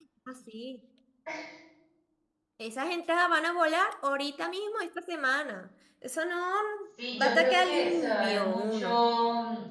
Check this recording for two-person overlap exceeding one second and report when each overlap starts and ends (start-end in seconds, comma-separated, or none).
7.2-8.9